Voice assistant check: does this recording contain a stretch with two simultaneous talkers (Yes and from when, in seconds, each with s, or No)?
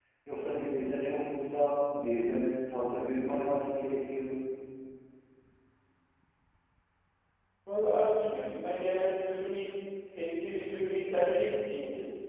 No